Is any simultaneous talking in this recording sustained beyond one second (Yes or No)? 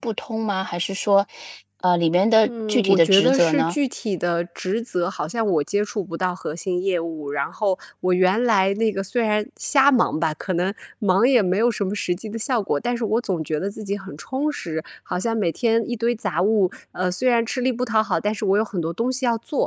Yes